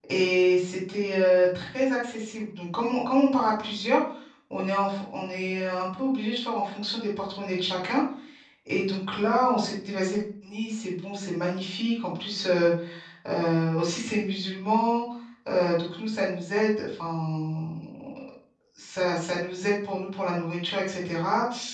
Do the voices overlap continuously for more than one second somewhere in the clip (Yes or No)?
No